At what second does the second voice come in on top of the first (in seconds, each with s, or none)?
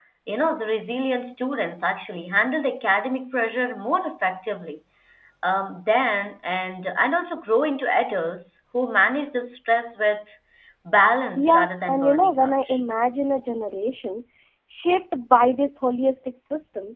11.4 s